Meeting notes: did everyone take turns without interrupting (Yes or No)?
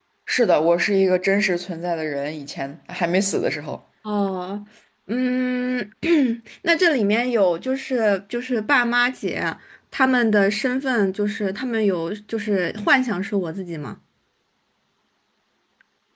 Yes